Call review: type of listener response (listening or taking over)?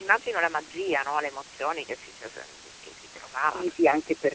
taking over